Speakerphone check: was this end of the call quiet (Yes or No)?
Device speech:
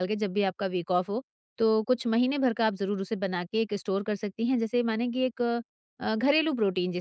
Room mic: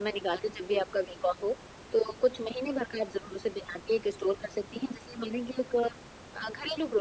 Yes